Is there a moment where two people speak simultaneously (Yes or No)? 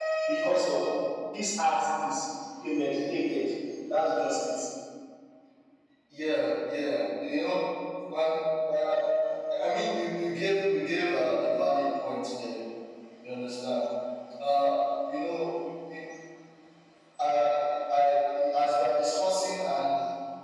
No